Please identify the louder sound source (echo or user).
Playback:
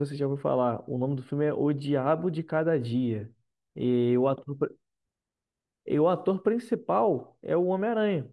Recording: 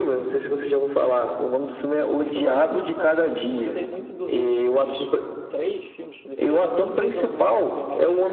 echo